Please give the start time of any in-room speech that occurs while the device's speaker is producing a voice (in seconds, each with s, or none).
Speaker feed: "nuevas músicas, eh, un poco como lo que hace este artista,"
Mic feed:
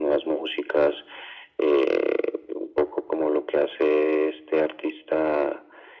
none